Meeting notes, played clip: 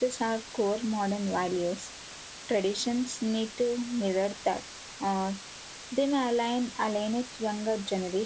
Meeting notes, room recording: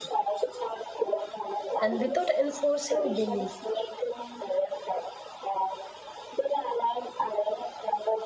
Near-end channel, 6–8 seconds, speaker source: echo only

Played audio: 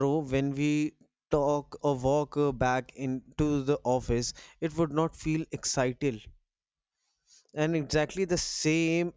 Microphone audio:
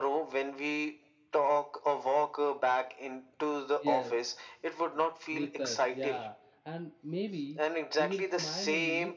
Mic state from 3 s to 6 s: both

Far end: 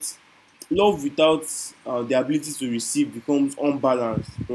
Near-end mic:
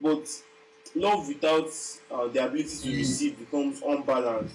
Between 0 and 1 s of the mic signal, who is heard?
echo only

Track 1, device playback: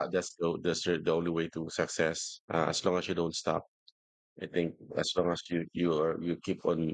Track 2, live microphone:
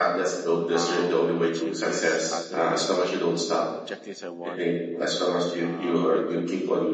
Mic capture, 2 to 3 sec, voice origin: both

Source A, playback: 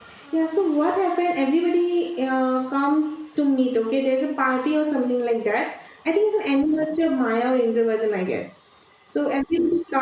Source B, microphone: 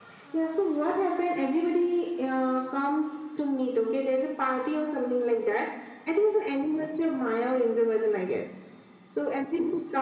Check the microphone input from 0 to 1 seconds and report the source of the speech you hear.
echo only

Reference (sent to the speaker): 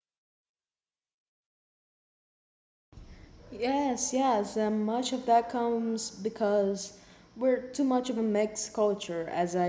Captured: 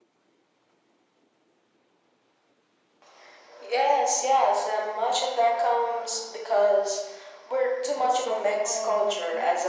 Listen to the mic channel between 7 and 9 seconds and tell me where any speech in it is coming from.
both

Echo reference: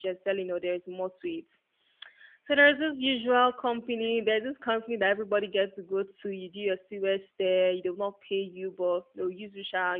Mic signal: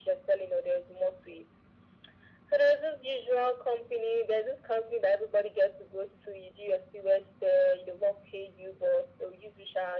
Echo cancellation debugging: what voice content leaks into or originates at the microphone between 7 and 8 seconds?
echo only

